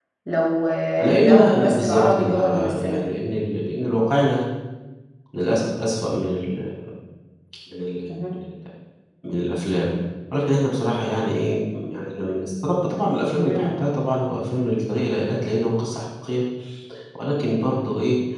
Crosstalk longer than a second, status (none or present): present